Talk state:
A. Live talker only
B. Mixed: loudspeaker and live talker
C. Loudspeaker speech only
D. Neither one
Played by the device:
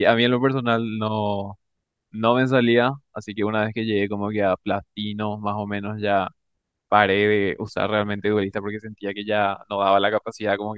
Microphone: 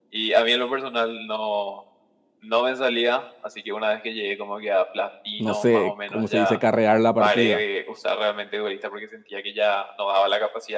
B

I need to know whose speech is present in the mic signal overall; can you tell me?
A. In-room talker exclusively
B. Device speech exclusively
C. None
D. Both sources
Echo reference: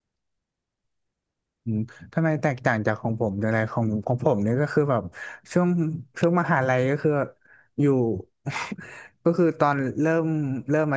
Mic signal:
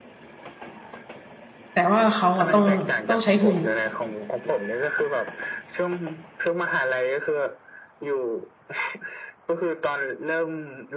D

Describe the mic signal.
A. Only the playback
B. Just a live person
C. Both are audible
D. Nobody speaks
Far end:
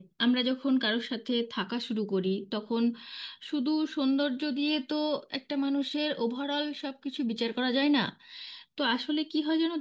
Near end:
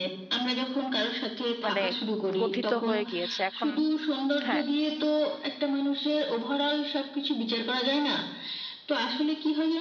C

